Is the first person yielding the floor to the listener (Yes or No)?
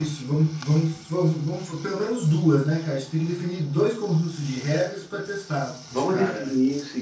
Yes